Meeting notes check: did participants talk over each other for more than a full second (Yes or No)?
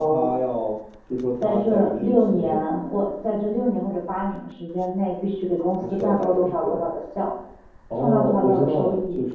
Yes